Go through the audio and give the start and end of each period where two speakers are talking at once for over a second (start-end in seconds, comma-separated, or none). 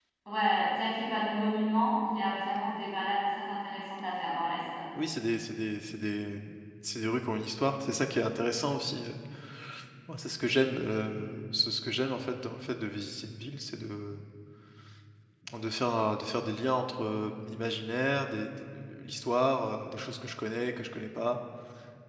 none